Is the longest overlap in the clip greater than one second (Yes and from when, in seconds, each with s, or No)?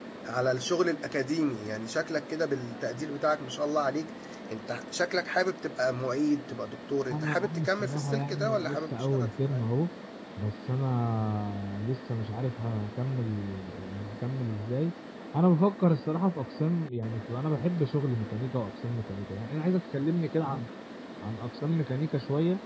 Yes, from 7.1 s